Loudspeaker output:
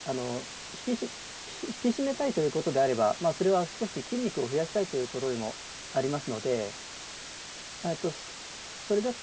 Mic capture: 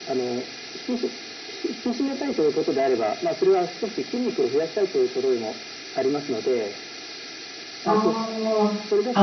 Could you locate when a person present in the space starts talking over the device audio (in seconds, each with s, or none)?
7.8 s